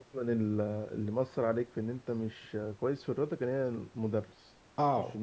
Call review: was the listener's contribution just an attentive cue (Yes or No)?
No